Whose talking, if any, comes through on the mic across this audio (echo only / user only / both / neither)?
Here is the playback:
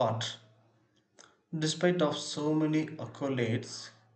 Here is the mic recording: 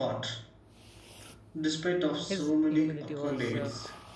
both